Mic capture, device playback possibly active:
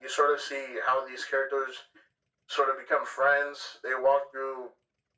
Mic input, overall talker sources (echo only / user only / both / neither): echo only